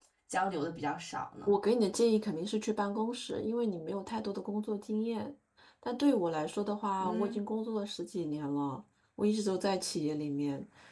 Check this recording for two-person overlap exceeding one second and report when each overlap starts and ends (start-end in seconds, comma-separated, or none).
none